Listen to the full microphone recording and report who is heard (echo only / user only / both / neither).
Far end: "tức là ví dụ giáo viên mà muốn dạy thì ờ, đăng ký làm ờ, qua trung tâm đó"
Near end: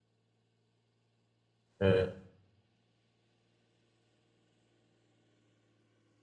user only